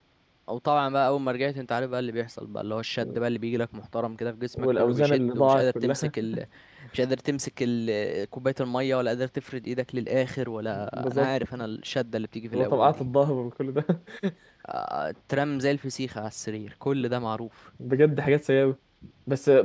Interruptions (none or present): present